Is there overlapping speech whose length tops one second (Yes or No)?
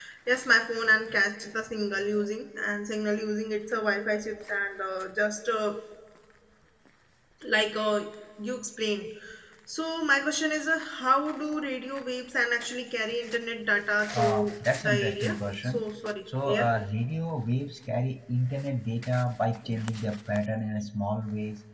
Yes